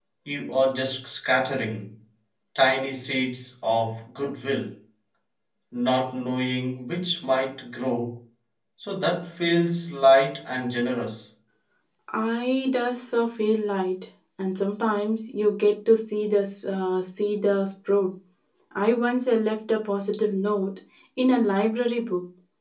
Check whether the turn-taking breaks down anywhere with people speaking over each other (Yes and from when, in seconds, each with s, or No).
No